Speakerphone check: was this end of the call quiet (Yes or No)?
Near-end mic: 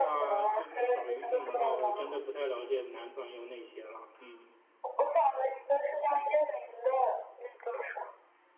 No